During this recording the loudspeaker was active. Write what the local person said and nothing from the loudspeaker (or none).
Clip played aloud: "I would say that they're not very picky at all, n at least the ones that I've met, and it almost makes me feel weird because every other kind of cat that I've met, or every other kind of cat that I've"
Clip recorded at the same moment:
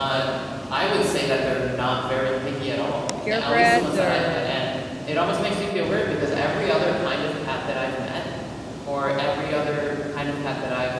purebreds or